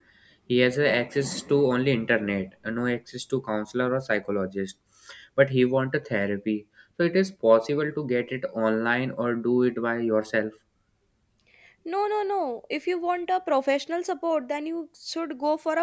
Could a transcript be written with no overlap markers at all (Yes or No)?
Yes